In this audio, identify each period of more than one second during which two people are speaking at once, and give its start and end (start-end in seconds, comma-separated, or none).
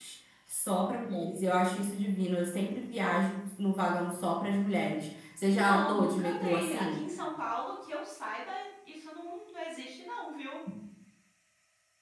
5.5-7.0